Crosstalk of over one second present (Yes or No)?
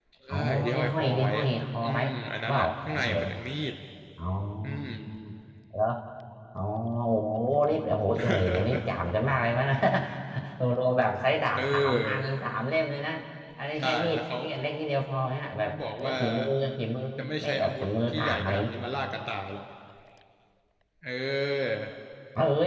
Yes